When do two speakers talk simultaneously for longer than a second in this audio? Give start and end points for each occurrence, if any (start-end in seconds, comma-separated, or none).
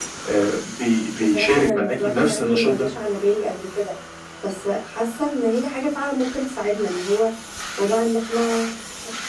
1.1-2.9